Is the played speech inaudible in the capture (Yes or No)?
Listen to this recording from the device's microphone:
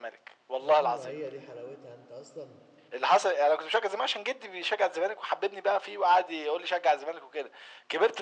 No